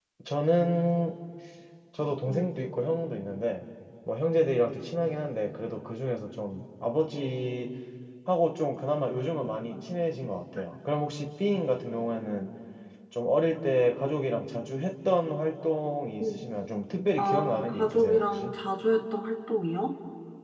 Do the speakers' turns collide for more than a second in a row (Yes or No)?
Yes